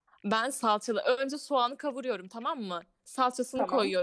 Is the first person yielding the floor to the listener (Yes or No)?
No